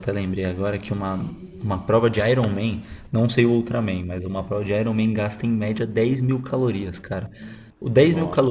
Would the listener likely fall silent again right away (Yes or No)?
Yes